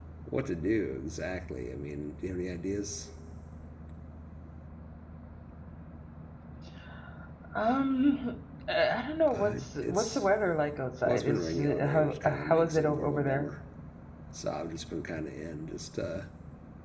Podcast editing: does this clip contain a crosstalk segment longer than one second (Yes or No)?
Yes